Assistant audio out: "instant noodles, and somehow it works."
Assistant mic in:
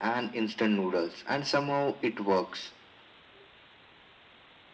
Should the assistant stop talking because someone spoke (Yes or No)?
No